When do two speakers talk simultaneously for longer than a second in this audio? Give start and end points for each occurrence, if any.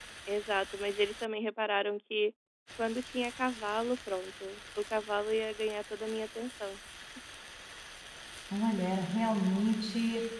none

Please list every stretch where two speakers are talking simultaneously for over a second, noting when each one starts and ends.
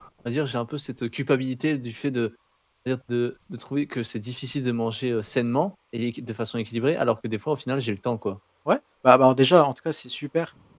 none

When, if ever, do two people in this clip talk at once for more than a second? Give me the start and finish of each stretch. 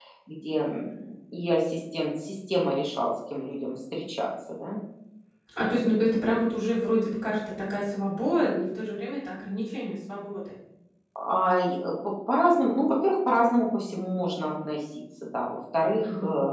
none

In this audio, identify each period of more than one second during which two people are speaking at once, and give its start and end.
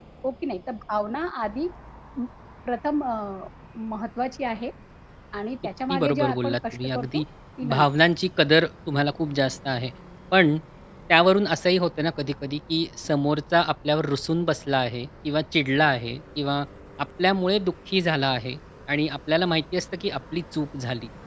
5.9-7.2

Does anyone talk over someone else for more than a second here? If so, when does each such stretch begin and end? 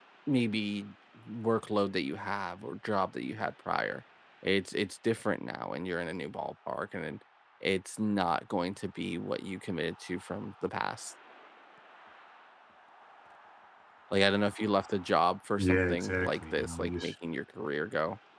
15.6-17.1

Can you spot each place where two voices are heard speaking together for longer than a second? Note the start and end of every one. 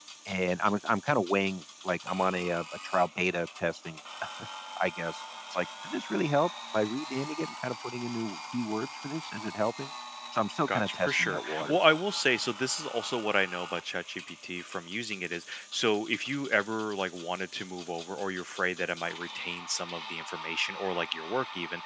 10.7-11.9

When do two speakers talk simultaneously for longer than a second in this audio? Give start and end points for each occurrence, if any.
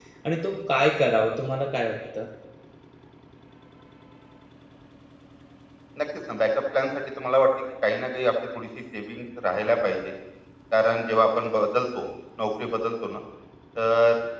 none

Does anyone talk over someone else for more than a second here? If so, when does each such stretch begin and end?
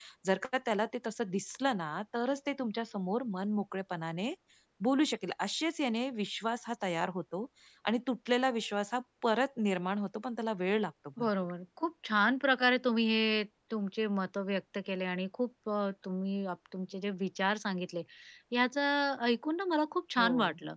none

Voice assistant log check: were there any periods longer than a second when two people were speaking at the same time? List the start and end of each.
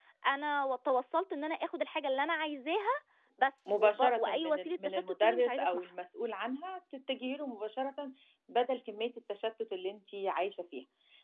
3.7-5.9

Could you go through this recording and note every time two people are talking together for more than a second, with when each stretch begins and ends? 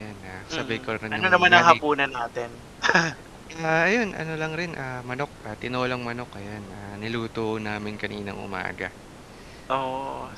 0.5-1.8

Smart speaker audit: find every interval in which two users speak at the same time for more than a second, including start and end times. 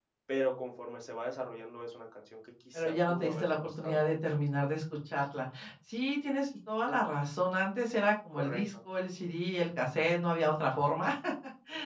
2.7-4.3

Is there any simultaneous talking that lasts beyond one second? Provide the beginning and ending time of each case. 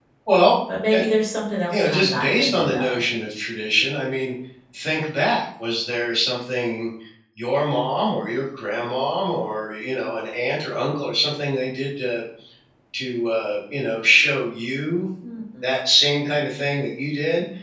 1.7-3.0

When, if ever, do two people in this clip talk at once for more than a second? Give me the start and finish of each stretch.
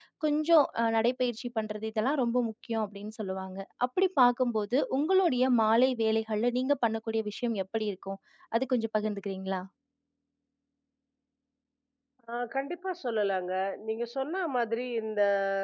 none

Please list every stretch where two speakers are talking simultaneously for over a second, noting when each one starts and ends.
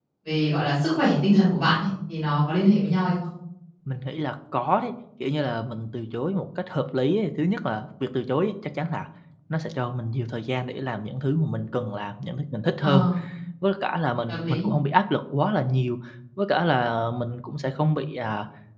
none

